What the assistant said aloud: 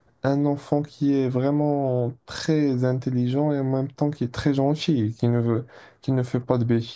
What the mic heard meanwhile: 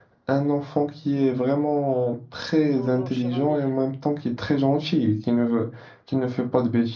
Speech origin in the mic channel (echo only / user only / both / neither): both